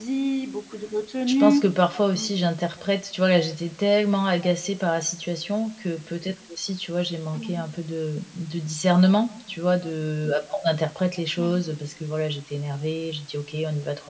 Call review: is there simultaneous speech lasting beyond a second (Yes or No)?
No